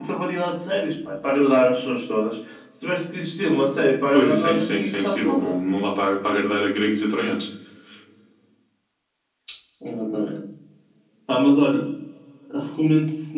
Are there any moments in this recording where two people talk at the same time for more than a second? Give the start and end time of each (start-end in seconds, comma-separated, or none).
4.1-5.5